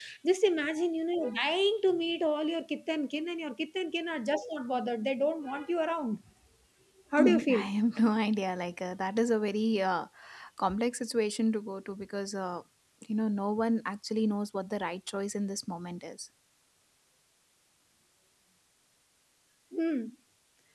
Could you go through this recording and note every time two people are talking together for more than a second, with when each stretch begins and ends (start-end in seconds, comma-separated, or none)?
none